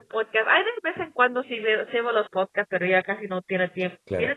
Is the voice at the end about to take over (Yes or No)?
Yes